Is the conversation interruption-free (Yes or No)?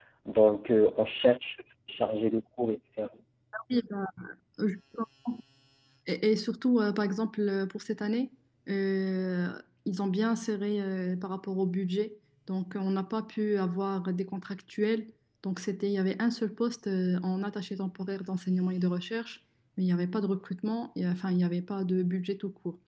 Yes